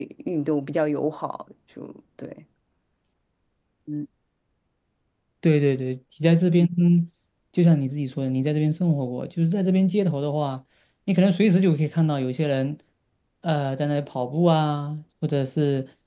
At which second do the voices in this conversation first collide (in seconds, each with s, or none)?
none